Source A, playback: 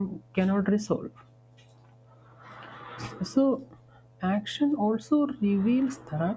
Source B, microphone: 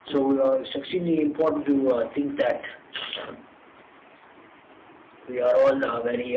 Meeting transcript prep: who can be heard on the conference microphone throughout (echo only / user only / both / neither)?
user only